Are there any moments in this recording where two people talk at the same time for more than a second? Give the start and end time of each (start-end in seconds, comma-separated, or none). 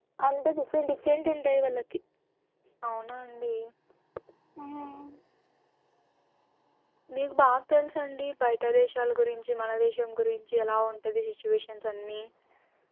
none